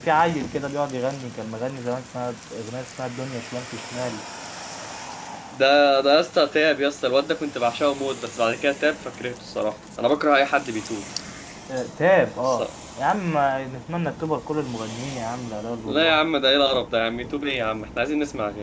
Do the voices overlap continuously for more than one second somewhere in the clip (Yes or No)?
No